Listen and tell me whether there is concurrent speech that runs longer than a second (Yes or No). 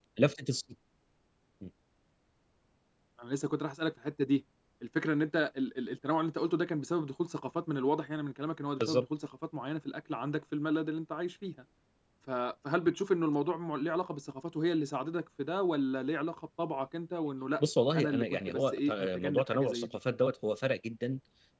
Yes